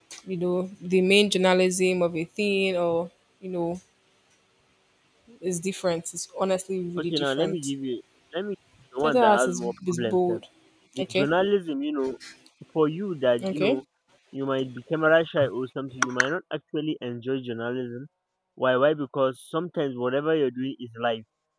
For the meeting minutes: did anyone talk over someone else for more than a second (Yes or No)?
Yes